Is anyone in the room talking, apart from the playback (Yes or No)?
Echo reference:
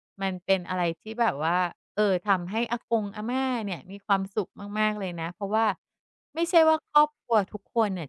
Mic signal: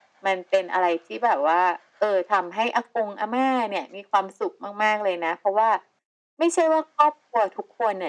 No